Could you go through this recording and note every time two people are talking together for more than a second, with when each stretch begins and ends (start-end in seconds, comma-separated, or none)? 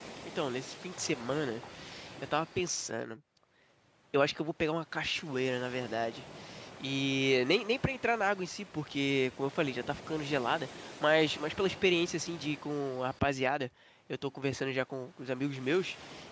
none